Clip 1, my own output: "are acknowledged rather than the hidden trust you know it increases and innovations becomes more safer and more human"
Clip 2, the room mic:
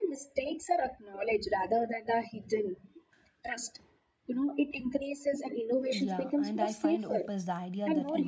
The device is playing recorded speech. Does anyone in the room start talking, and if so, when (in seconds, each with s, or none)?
5.9 s